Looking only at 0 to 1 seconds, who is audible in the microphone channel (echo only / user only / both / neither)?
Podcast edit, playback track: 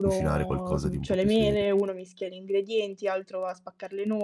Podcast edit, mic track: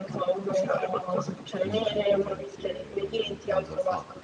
echo only